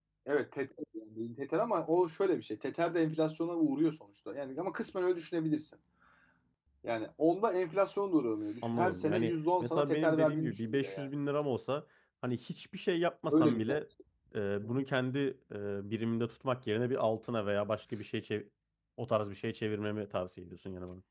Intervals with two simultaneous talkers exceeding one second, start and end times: 8.6-11.1

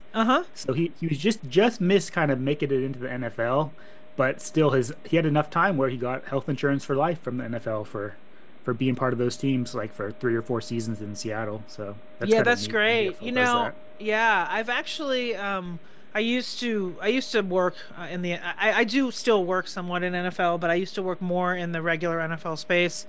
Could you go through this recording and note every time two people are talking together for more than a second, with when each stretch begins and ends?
12.2-13.7

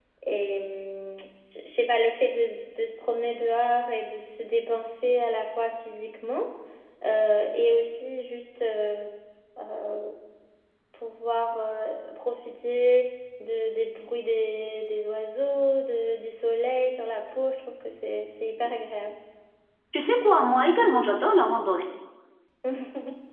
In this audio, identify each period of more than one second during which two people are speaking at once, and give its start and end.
none

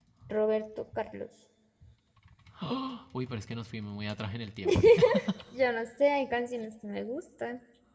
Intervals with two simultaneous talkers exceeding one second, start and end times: none

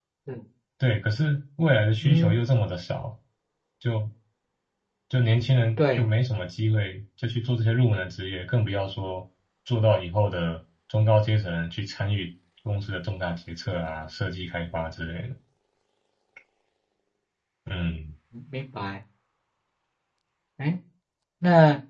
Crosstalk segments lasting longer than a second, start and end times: none

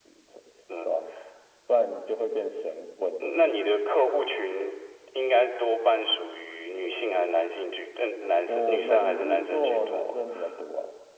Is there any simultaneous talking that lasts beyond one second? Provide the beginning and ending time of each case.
8.4-10.0

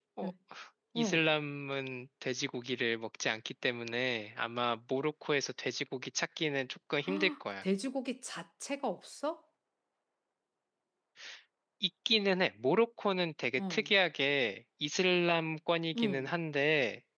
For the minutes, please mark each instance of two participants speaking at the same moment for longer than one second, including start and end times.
none

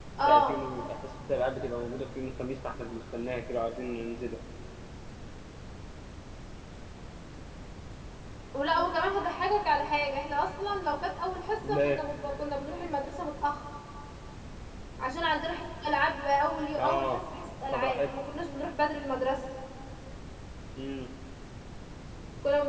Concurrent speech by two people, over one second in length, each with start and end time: none

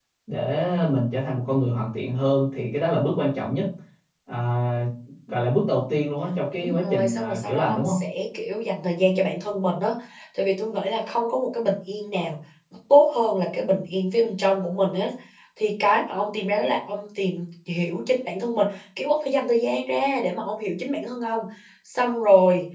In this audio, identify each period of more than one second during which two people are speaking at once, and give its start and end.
6.6-8.0

